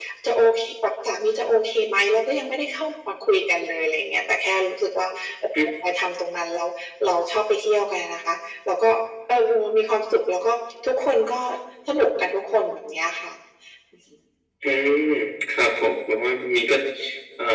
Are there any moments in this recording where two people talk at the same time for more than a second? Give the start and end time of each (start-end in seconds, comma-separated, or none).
none